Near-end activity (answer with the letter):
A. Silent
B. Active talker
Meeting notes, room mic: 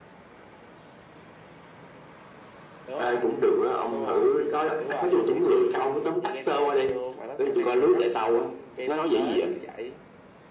A